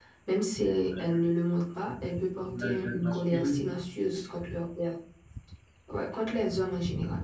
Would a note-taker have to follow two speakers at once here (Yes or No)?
Yes